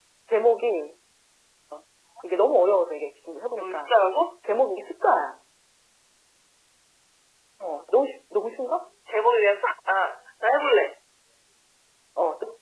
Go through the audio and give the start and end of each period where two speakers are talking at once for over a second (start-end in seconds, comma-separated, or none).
none